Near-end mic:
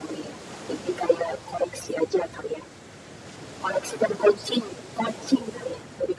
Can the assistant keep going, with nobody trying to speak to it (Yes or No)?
Yes